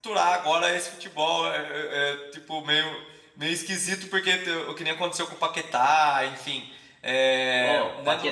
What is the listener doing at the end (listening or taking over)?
taking over